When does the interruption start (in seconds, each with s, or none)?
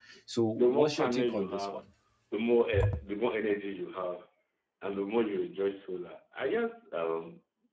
0.6 s